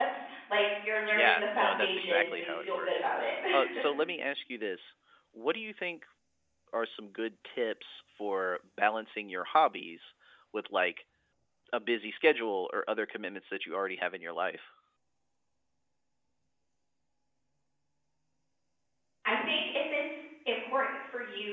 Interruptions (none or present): present